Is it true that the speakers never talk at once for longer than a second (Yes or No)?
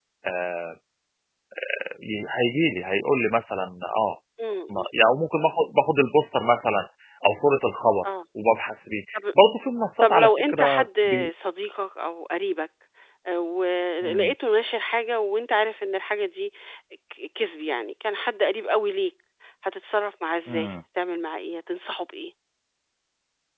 No